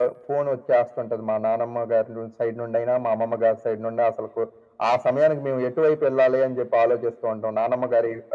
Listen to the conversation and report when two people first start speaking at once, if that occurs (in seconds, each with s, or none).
none